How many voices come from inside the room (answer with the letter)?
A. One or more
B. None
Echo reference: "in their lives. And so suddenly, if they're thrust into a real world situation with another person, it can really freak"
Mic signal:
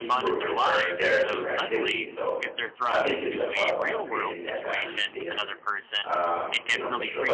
A